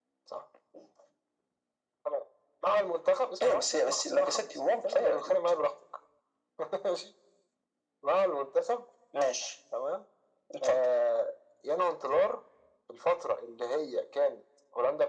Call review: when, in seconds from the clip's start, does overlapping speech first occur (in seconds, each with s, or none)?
3.4 s